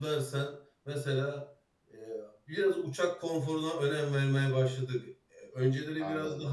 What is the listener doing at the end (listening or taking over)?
listening